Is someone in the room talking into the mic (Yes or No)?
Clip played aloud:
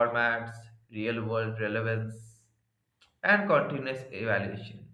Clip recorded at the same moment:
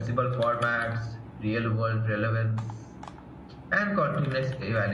No